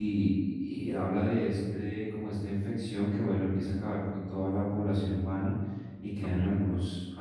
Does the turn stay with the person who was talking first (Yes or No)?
Yes